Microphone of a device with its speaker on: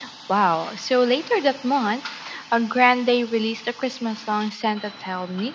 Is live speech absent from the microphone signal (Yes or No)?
Yes